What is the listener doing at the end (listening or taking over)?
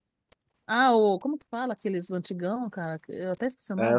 taking over